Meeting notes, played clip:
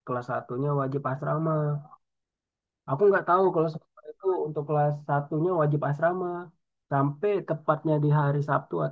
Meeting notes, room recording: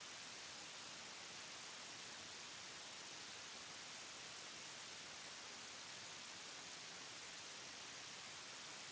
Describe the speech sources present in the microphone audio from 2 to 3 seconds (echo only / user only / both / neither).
neither